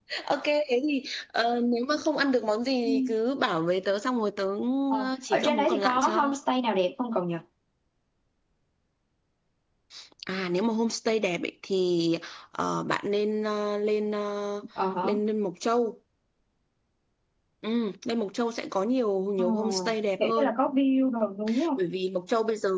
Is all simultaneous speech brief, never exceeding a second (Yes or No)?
No